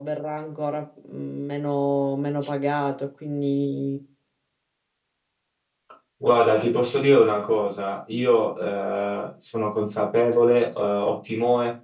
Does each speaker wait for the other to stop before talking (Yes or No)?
Yes